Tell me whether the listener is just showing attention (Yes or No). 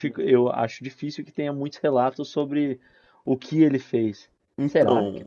No